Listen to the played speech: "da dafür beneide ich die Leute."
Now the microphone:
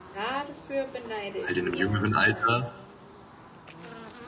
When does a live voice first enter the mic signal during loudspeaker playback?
1.4 s

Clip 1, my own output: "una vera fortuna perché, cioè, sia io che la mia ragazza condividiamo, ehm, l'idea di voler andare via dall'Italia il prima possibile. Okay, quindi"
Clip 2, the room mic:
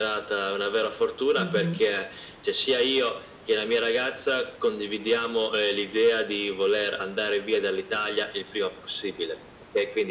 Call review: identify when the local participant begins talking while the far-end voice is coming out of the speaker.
1.4 s

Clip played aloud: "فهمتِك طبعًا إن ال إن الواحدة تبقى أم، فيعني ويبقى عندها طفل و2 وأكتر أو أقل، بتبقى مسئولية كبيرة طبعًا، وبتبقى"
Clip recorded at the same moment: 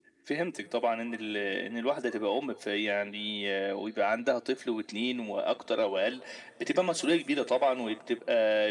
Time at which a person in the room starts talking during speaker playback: none

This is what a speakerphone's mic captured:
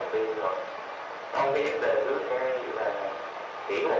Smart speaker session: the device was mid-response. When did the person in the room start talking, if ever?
none

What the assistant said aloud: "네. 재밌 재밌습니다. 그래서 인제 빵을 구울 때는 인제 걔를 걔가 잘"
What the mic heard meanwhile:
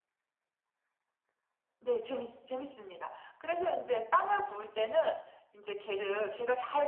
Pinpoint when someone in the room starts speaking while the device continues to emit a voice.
none

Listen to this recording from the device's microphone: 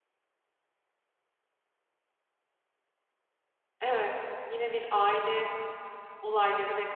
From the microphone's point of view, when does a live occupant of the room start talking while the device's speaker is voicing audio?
3.8 s

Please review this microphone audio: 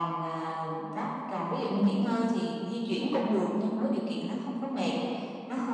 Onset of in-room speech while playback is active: none

